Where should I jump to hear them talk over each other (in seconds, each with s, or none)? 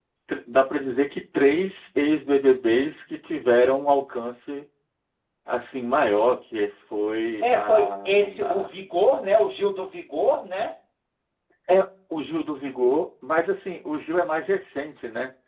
7.4 s